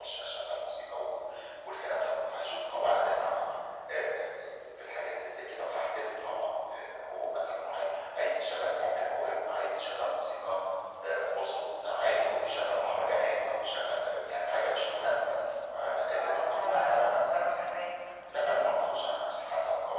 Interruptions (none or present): present